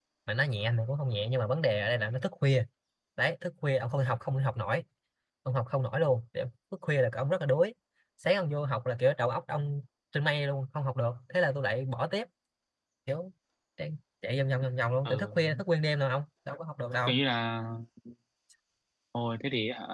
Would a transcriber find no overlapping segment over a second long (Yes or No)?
Yes